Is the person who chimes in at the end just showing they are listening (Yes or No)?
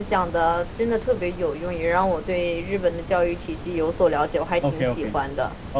No